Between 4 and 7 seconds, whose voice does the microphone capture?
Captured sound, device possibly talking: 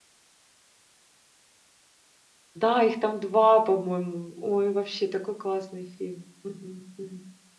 user only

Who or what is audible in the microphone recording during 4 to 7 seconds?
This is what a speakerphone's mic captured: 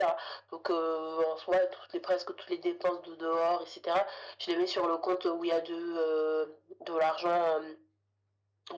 echo only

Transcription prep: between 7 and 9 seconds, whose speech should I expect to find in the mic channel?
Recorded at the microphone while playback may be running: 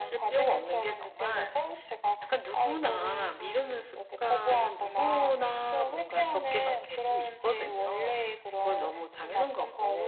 echo only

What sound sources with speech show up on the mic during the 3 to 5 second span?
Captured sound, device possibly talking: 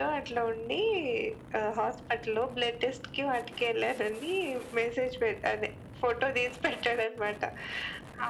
echo only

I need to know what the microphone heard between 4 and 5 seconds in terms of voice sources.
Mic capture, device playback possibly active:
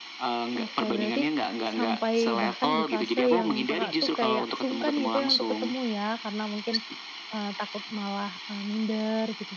both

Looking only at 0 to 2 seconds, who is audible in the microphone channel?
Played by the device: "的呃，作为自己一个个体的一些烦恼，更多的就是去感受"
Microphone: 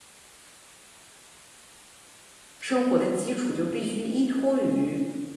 neither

